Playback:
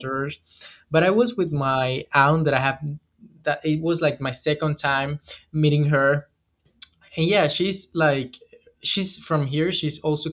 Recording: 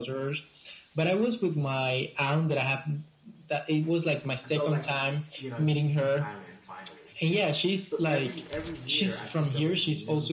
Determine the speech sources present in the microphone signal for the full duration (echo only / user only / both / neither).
both